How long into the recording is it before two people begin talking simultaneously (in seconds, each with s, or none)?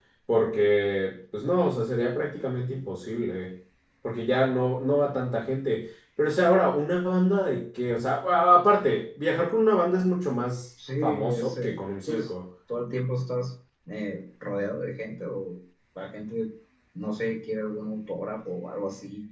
11.0 s